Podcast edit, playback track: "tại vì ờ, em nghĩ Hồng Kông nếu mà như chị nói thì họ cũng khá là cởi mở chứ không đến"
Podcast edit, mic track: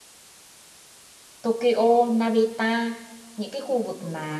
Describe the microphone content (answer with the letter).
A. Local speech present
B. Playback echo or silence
A